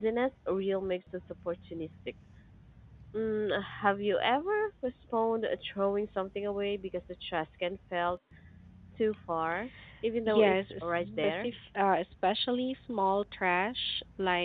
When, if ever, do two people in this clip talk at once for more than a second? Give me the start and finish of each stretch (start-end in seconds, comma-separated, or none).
10.3-11.5